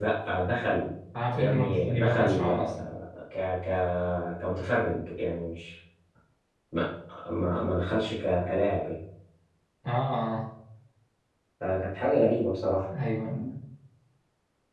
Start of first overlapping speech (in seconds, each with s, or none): 1.3 s